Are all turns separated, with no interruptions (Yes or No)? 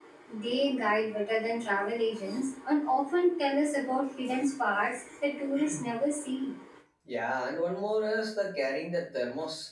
Yes